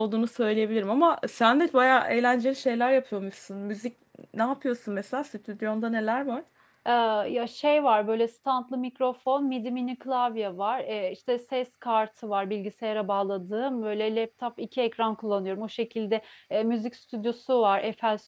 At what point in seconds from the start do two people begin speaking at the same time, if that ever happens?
none

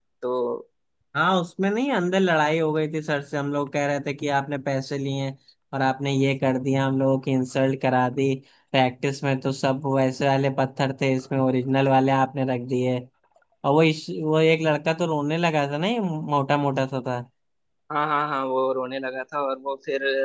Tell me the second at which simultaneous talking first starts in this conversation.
none

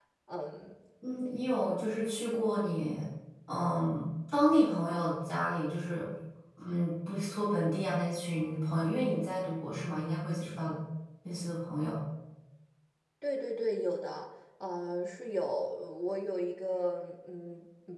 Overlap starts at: none

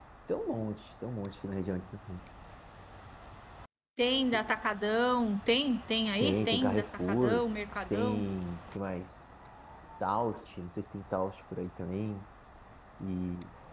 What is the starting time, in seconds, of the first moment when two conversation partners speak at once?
6 s

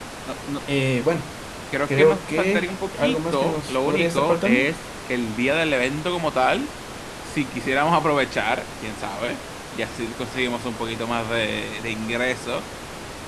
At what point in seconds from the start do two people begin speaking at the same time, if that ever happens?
2 s

